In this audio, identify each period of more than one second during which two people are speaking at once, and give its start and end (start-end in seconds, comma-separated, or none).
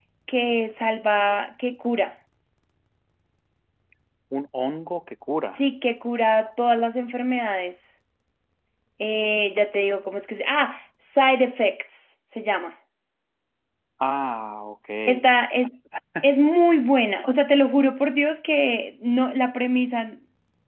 none